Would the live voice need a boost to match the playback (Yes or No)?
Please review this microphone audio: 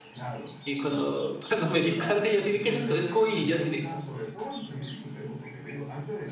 No